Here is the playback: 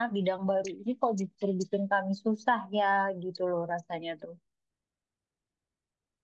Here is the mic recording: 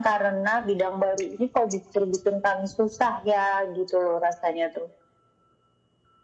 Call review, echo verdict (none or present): present